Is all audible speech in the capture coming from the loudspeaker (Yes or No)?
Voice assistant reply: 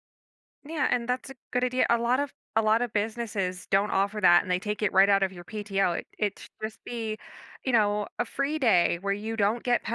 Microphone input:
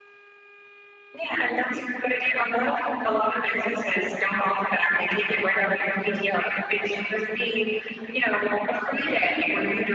Yes